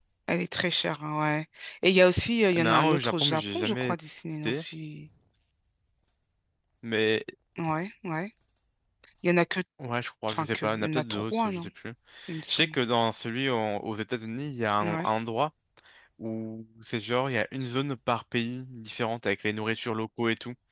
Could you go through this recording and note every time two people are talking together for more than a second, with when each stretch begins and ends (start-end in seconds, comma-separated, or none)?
2.5-4.0, 10.3-11.7